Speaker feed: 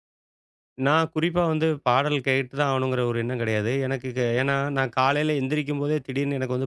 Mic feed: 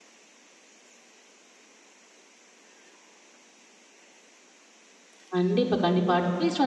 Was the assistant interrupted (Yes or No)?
Yes